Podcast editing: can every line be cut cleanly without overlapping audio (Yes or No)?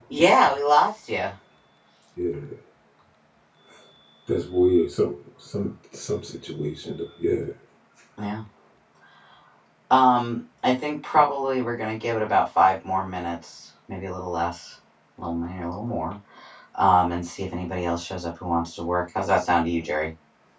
Yes